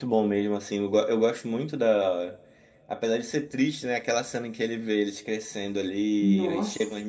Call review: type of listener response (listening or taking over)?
listening